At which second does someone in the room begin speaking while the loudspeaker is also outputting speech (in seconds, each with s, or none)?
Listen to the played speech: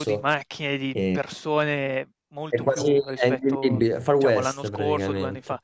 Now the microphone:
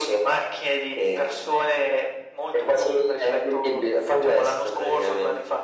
none